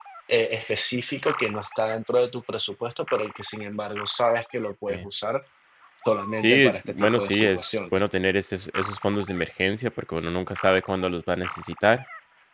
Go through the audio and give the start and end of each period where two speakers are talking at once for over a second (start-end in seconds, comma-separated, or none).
6.3-8.0